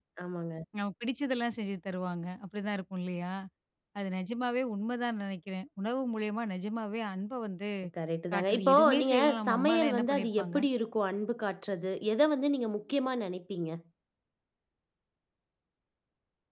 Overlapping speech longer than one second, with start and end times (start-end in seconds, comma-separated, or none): 8.3-10.6